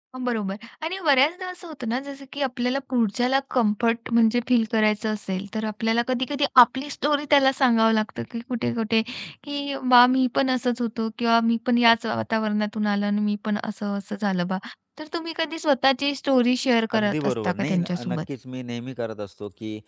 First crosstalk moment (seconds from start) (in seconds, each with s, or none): 16.9 s